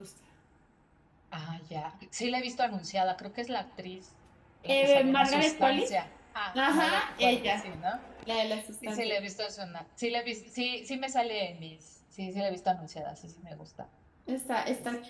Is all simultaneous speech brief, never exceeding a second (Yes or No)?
No